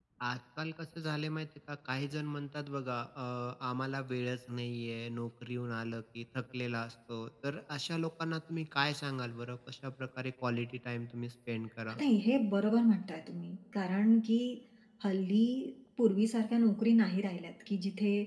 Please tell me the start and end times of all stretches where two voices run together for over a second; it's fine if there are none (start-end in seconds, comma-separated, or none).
none